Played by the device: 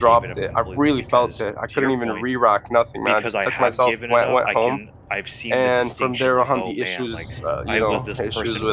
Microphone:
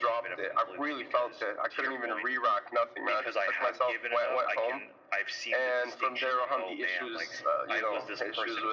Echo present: Yes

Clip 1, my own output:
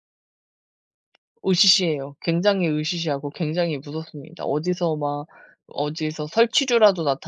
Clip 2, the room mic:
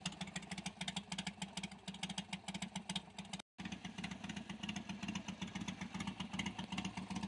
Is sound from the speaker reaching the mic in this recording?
No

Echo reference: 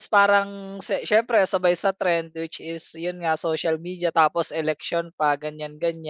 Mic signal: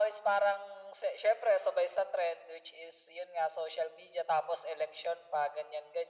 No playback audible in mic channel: No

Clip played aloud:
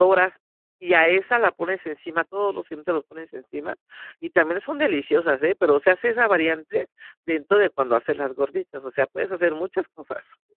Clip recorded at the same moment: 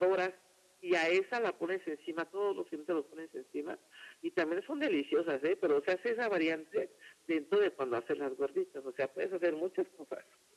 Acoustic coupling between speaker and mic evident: Yes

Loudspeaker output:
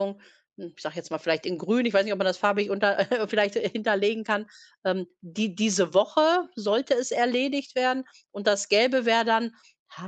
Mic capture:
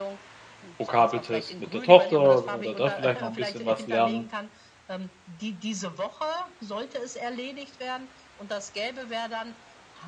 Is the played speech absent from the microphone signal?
No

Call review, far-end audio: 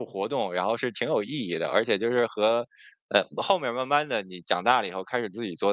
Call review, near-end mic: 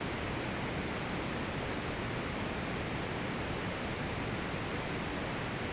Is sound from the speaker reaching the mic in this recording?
No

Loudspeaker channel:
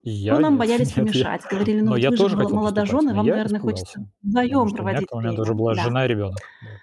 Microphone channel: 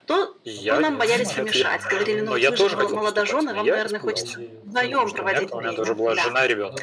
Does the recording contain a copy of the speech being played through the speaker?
Yes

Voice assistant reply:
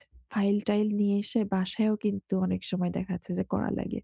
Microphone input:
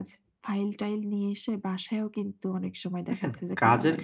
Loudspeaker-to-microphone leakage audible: Yes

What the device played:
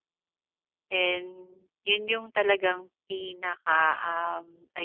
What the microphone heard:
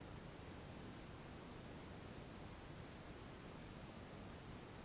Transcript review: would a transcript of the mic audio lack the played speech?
Yes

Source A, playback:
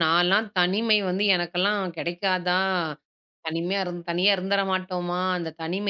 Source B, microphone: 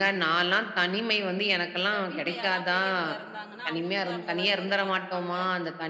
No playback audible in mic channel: No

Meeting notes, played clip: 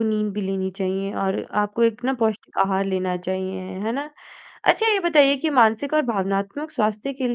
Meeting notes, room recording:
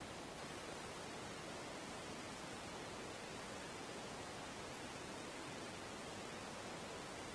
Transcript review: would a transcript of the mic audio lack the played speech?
Yes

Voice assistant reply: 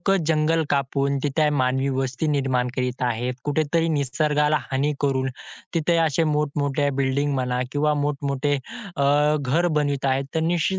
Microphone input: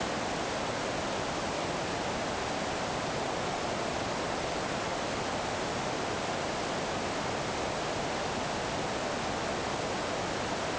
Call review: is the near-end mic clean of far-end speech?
Yes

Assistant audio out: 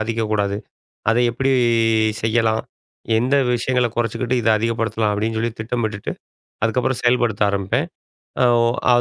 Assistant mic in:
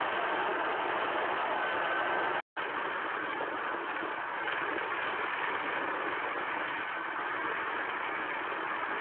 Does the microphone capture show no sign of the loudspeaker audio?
Yes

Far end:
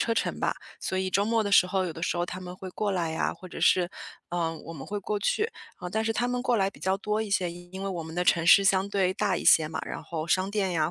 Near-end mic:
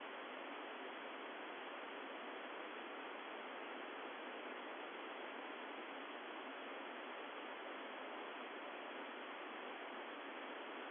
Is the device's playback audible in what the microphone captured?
No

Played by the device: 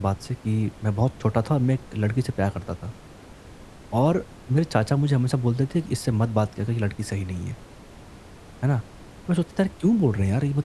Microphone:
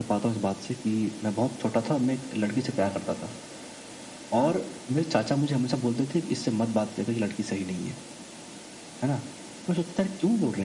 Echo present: Yes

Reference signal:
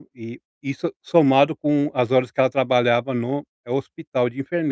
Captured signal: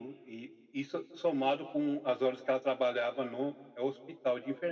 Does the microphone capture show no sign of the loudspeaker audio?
No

